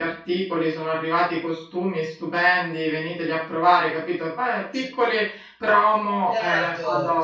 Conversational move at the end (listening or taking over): taking over